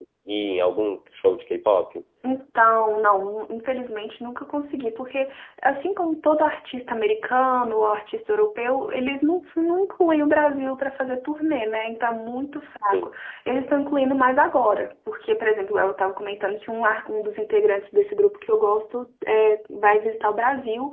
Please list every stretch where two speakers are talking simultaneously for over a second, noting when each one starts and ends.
none

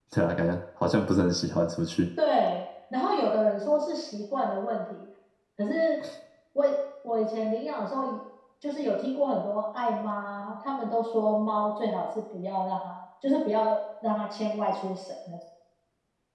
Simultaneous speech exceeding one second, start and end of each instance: none

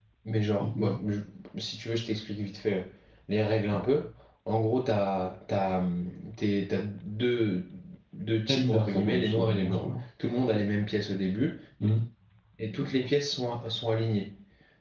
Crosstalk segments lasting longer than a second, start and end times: 8.5-9.8

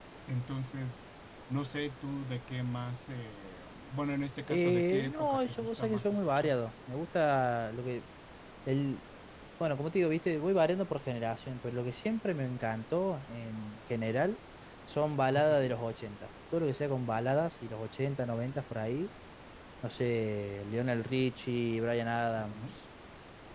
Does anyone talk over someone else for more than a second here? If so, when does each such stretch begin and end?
4.5-6.5

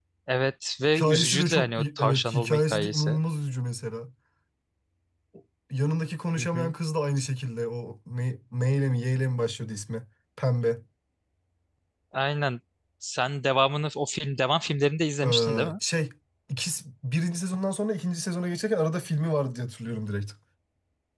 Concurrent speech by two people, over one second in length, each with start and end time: 0.8-3.1

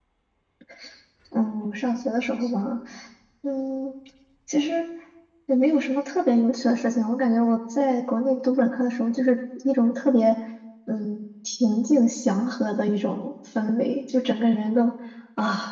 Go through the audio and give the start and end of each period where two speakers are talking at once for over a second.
none

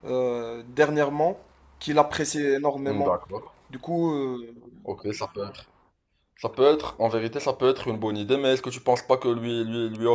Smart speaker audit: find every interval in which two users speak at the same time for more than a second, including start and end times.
none

